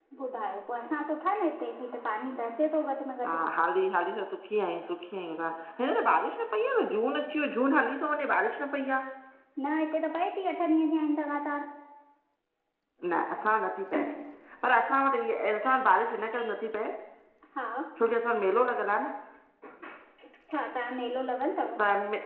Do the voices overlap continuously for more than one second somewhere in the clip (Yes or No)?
No